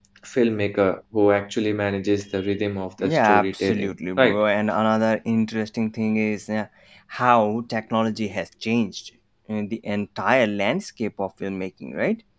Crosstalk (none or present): present